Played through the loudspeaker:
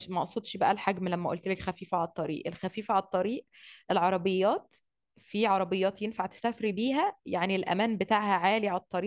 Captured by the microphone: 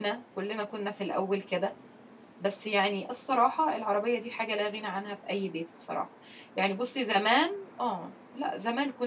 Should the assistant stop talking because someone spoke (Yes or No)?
Yes